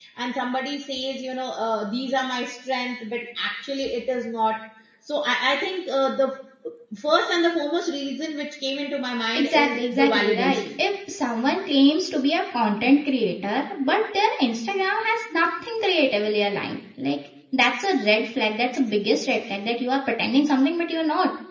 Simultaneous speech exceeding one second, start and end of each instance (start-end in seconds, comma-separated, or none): 9.3-10.7